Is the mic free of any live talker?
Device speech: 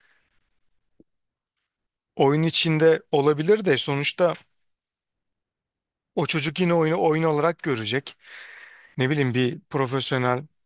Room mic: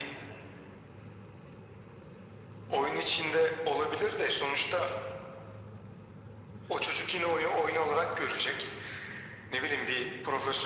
Yes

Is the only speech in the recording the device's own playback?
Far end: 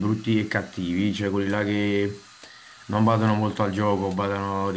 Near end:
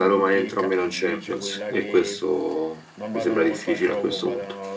No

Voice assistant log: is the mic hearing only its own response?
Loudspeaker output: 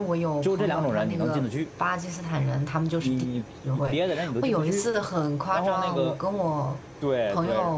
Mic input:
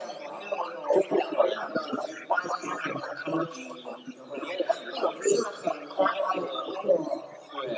Yes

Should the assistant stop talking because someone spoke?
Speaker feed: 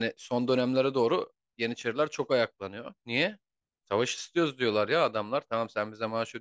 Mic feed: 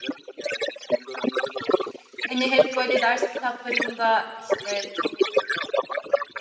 Yes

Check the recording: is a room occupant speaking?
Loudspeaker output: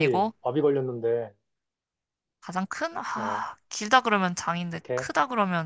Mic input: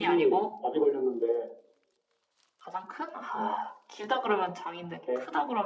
No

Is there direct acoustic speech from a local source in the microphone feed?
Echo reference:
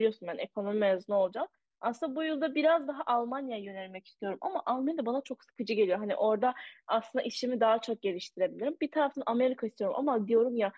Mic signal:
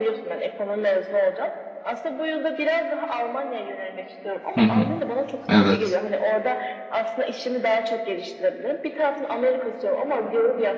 Yes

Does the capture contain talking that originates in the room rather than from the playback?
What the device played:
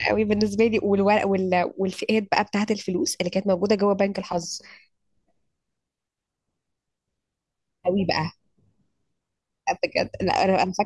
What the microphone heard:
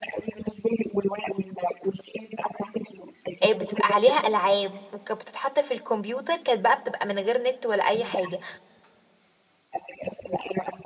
Yes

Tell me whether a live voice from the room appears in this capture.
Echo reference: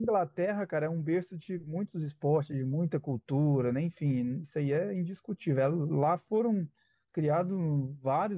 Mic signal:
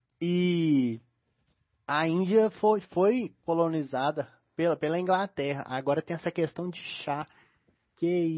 Yes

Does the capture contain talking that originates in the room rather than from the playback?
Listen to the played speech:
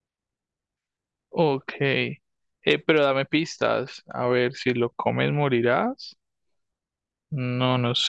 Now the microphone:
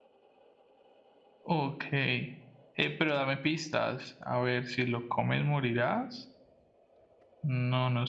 No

